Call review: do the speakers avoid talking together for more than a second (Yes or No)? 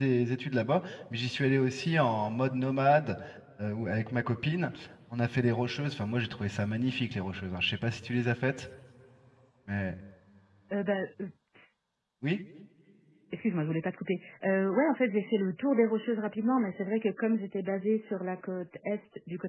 Yes